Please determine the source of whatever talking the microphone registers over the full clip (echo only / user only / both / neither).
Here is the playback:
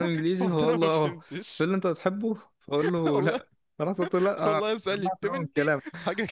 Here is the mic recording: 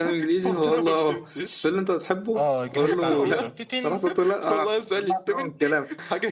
both